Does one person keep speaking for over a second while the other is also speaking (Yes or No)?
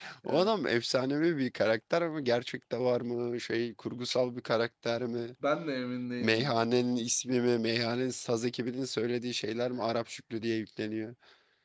No